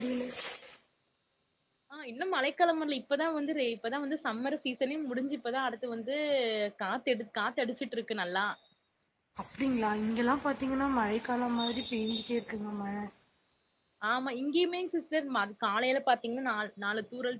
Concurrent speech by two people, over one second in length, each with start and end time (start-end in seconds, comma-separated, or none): none